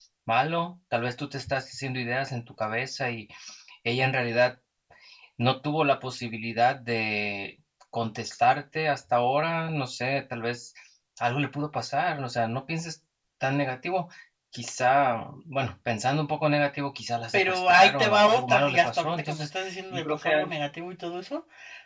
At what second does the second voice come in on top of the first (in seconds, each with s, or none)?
17.3 s